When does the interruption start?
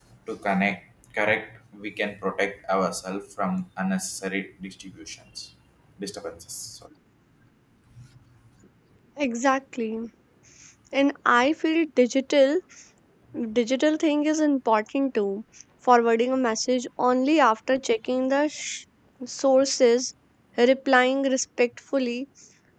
none

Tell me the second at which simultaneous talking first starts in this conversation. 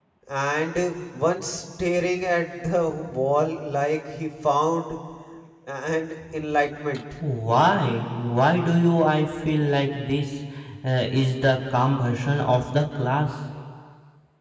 none

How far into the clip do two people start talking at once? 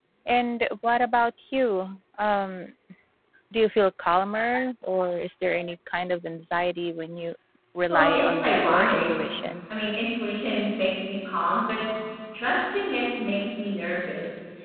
7.9 s

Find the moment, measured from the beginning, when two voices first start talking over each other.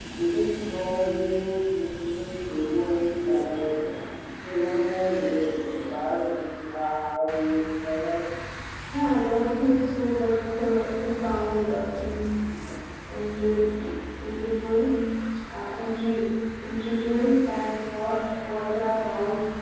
none

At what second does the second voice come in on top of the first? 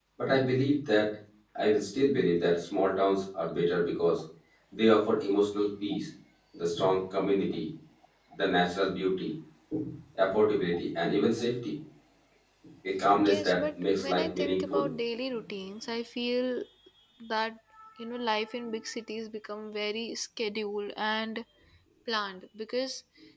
13.2 s

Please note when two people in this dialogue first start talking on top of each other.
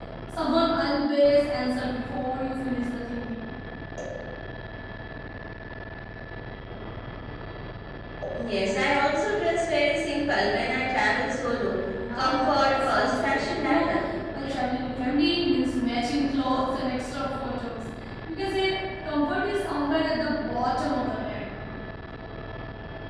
12.0 s

